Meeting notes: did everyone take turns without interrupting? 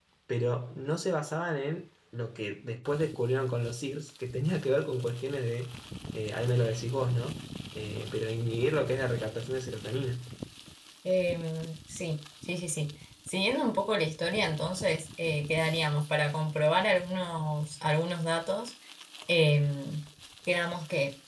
Yes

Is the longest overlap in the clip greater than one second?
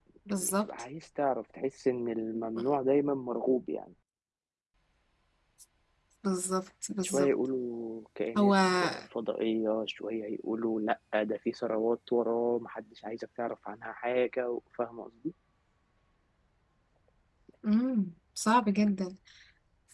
No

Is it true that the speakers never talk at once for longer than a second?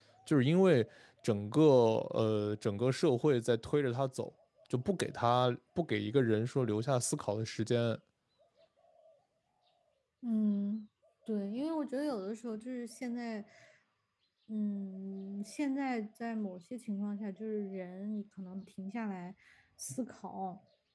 Yes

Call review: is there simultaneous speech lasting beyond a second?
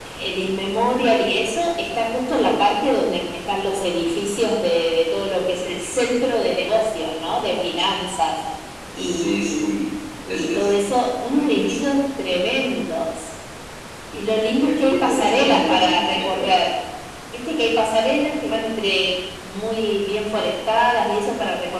Yes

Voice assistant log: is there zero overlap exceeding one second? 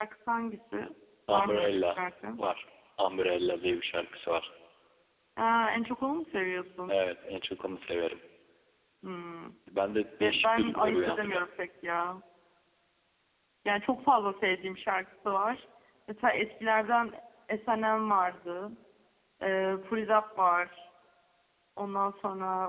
No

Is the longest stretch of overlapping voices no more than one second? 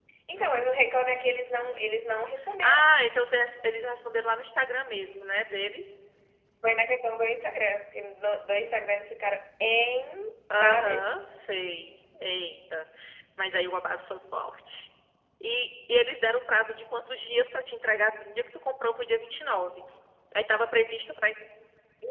Yes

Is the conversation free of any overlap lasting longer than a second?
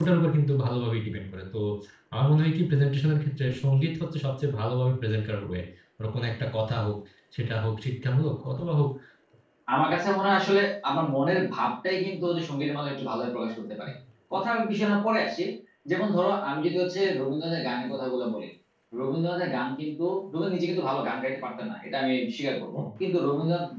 Yes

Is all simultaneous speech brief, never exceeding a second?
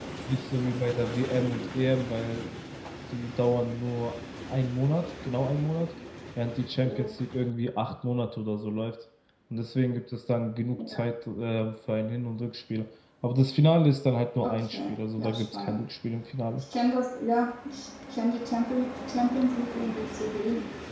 No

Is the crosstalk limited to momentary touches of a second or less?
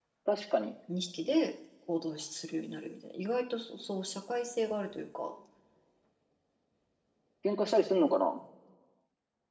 Yes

